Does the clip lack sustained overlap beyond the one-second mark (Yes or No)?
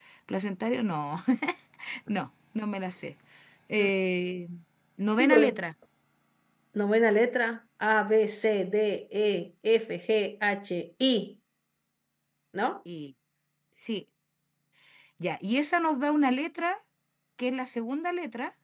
Yes